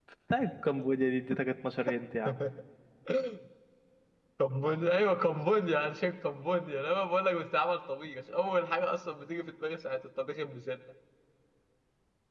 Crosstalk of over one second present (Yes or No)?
No